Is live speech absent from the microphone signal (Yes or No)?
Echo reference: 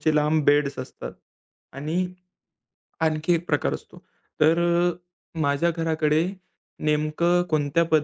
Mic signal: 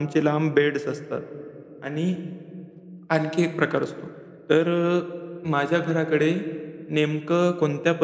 Yes